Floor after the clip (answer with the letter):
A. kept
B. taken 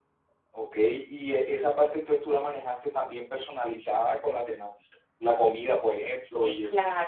B